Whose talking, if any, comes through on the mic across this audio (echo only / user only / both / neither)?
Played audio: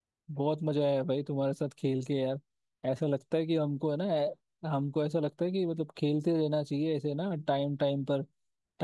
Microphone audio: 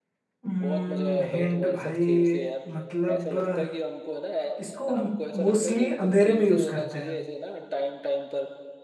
both